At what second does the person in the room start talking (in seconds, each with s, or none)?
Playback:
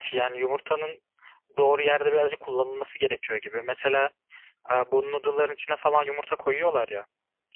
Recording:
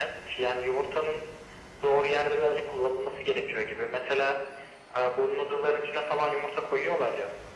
none